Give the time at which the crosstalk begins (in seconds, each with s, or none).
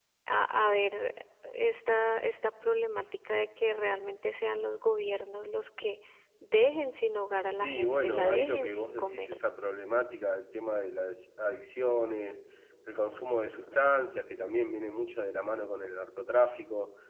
7.5 s